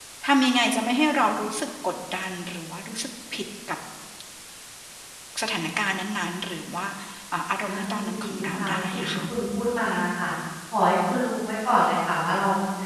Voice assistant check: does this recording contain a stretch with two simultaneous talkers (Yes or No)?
Yes